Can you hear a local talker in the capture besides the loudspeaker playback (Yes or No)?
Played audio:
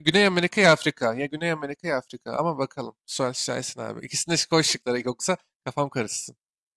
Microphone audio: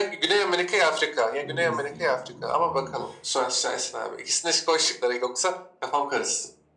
Yes